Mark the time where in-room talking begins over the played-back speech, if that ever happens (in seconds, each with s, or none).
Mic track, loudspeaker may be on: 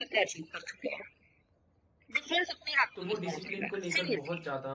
3.0 s